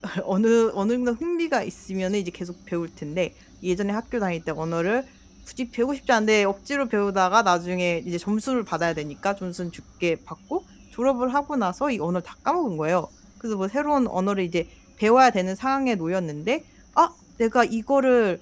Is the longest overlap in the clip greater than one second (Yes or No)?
No